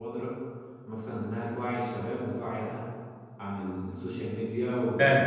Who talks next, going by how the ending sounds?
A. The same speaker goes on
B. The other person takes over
B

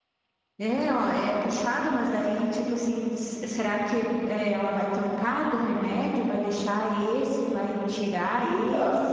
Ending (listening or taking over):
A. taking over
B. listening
A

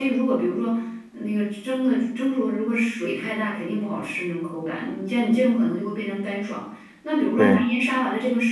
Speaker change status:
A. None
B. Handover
A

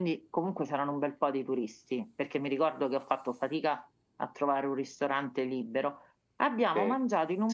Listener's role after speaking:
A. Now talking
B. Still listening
B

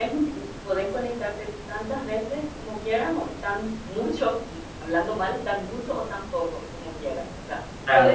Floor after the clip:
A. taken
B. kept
B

